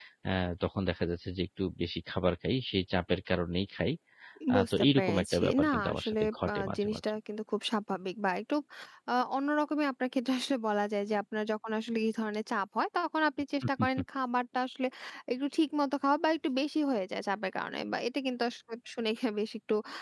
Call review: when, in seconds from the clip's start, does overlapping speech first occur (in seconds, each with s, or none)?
4.5 s